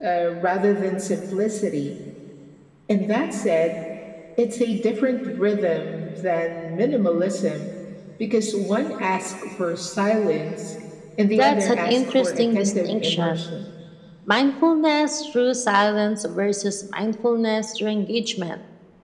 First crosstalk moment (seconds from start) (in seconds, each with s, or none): 11.3 s